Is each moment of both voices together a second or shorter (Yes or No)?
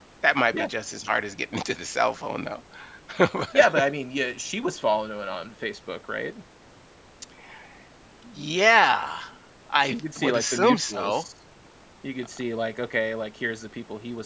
No